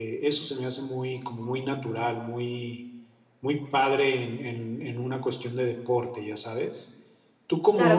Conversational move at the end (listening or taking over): taking over